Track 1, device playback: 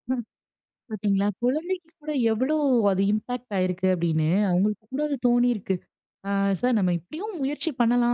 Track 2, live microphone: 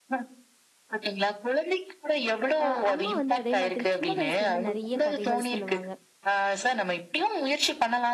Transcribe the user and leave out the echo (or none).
அ அம்மா வந்து அதே மாதிரி சின்ன வயசுலேருந்து நெறைய கதைகள் சொல்லுவாங்க.